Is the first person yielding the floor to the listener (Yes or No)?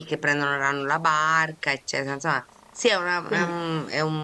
No